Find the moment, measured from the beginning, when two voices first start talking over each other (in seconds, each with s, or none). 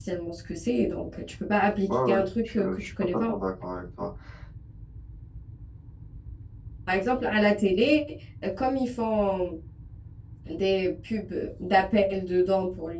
1.9 s